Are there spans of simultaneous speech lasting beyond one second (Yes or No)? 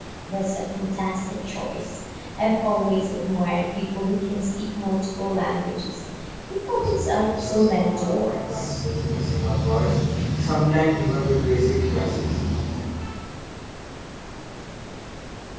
Yes